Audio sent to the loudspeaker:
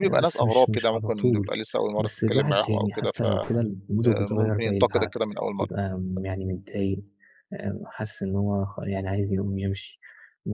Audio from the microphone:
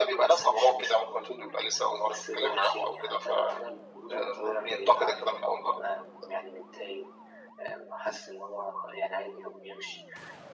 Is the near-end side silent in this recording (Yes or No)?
Yes